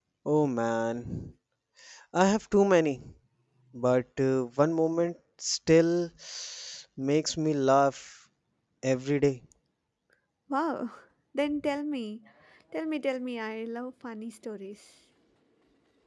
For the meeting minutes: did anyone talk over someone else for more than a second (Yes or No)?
No